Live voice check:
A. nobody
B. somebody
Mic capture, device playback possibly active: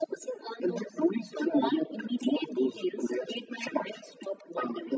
A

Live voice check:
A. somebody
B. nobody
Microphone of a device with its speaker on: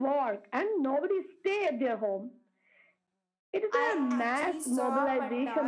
A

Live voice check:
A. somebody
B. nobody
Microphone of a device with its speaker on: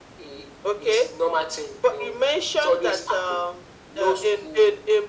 B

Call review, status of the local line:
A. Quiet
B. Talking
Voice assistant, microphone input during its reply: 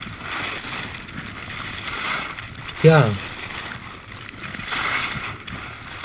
B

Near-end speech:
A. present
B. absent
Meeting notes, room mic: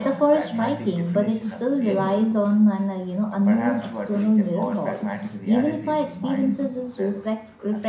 B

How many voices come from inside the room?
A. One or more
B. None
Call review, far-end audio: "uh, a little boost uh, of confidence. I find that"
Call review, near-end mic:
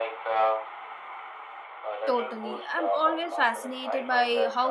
A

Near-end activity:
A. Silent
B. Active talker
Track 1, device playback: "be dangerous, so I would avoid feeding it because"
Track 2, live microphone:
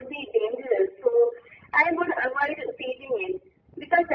A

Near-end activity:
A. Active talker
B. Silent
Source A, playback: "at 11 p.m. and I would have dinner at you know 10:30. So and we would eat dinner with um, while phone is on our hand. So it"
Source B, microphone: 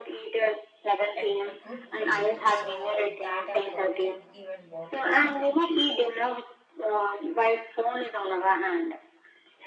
A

